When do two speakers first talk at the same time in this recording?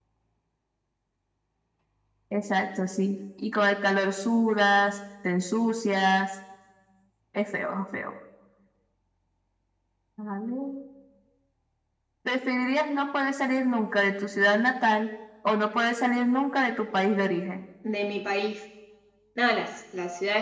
none

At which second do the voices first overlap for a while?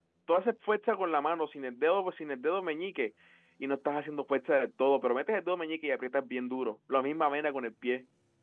none

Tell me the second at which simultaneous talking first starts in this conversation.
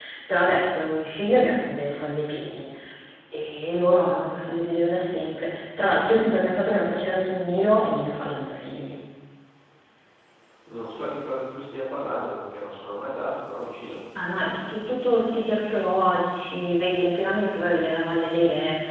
none

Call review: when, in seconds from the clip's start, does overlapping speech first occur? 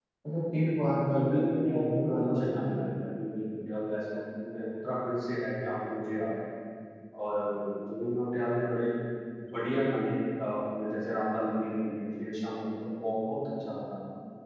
0.9 s

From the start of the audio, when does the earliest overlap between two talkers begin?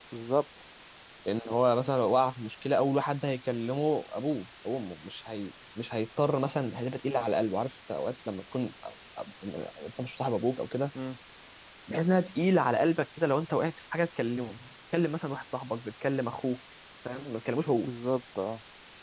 none

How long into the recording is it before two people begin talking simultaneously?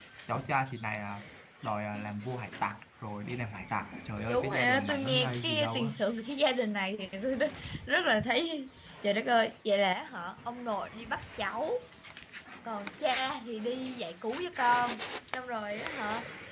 4.3 s

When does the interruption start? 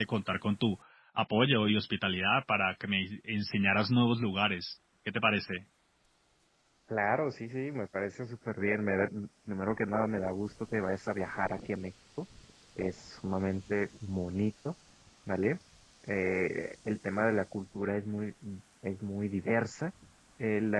none

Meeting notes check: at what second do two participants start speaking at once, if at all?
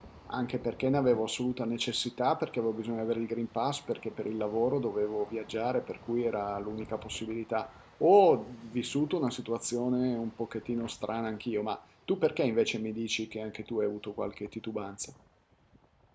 none

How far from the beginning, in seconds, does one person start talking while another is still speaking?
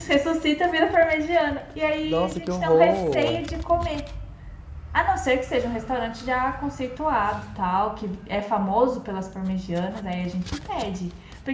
2.0 s

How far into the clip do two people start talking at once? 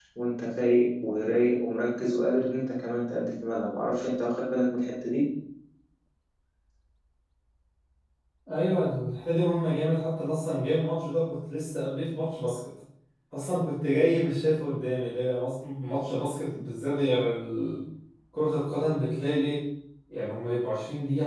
none

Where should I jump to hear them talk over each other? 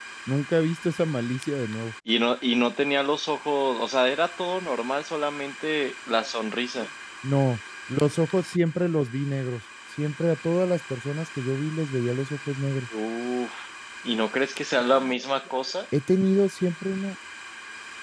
none

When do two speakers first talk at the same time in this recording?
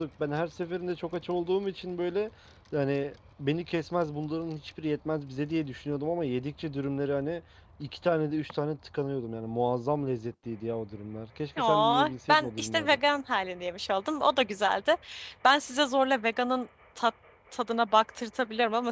11.6 s

